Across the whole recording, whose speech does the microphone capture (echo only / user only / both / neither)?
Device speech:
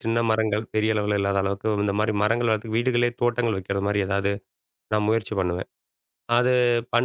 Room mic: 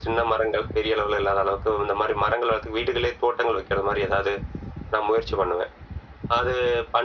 echo only